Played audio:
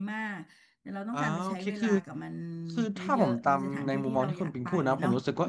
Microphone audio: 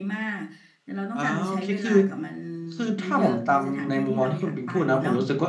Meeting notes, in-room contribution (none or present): none